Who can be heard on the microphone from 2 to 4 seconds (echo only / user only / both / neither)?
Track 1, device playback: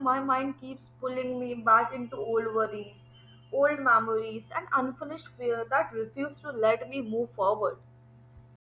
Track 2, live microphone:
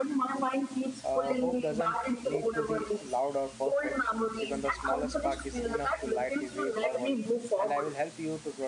both